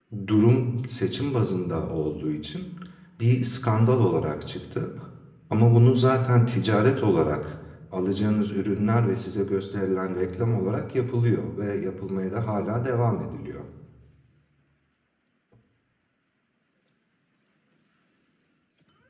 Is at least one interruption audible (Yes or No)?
No